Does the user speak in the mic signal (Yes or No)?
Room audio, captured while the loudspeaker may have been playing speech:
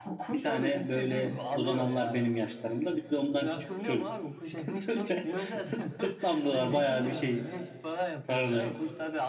Yes